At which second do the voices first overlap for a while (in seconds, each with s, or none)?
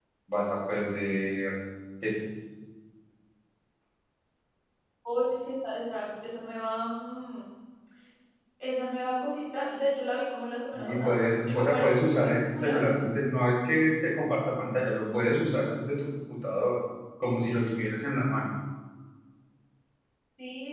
10.7 s